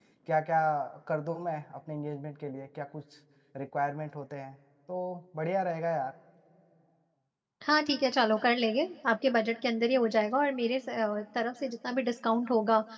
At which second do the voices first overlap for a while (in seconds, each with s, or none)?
none